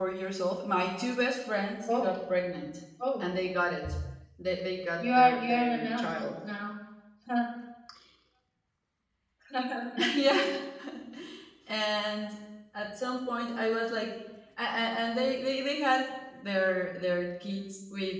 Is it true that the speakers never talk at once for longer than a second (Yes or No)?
No